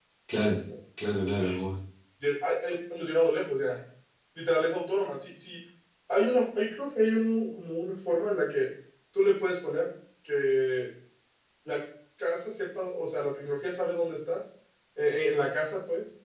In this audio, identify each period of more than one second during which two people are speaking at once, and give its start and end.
none

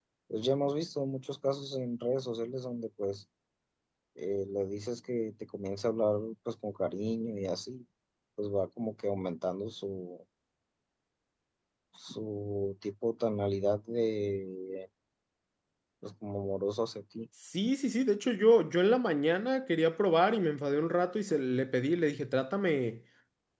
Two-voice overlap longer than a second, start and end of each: none

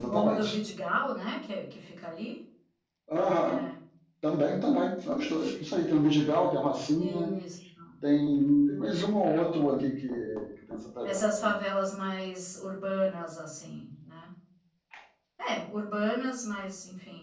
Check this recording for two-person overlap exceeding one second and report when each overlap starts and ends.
none

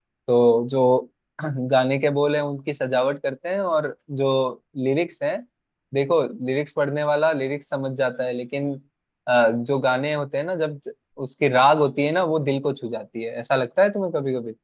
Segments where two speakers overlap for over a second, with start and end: none

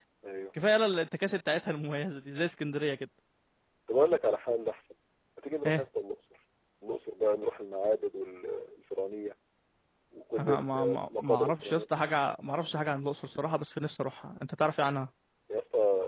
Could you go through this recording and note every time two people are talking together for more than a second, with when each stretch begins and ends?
10.4-11.8

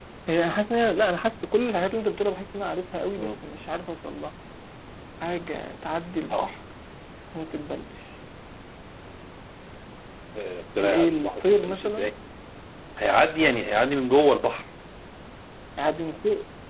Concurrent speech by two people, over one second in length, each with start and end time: 10.8-12.1

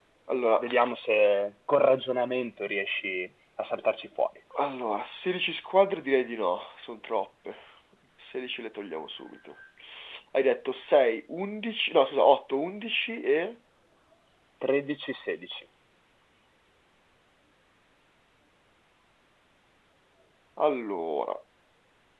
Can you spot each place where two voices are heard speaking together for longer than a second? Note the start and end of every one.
none

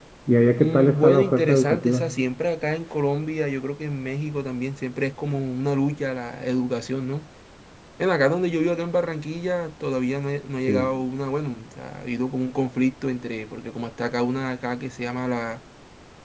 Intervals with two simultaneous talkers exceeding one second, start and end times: 0.6-2.1

